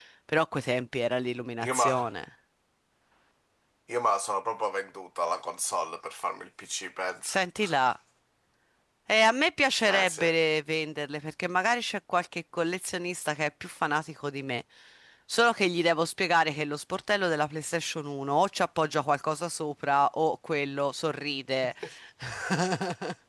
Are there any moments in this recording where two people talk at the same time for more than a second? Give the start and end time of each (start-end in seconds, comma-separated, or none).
none